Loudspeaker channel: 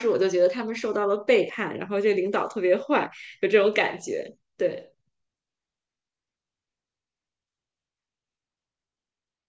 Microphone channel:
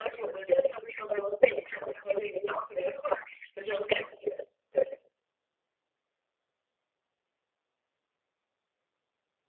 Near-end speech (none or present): none